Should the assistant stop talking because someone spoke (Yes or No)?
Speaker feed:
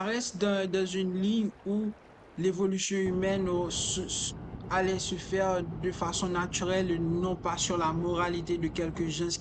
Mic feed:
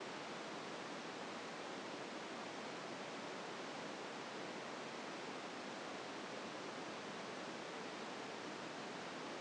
No